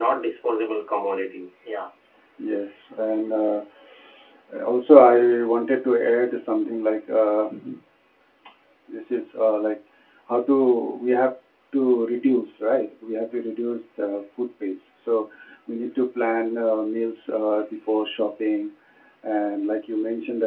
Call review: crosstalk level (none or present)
none